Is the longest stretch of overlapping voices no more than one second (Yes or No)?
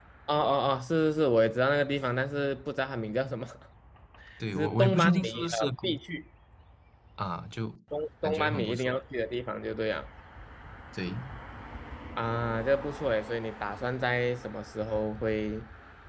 No